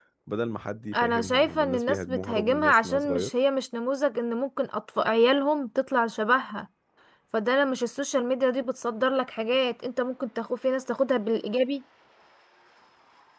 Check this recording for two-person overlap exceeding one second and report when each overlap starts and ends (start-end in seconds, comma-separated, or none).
0.9-3.3